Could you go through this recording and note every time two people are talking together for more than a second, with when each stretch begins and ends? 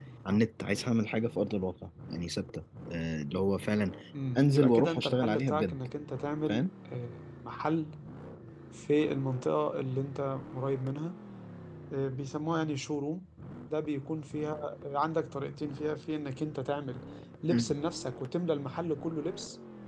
4.4-5.8

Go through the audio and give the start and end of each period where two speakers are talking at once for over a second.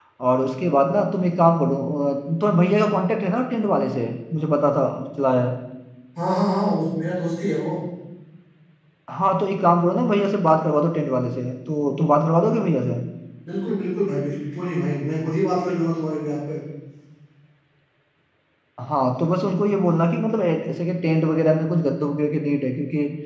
none

